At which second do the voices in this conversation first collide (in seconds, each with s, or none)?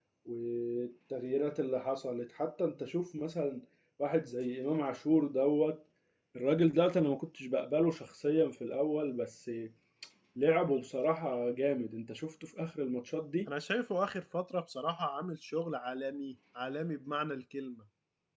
none